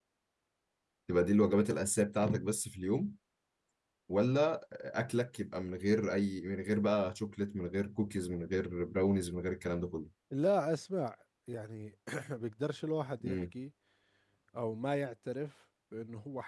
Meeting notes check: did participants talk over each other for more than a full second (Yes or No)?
No